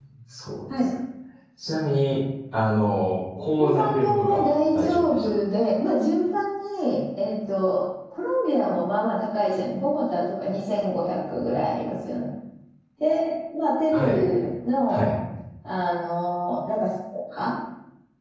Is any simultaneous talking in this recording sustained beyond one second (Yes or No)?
Yes